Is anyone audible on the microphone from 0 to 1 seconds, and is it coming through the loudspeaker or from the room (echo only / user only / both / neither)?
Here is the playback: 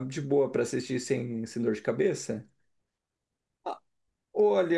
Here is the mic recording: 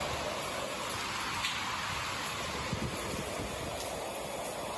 neither